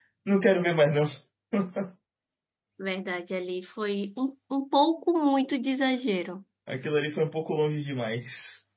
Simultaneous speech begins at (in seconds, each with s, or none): none